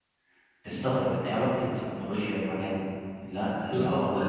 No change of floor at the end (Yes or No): No